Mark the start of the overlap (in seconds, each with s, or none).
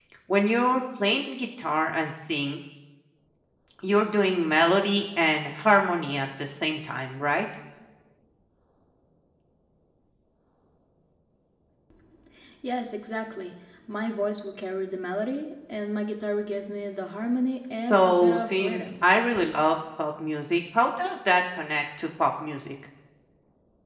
17.7 s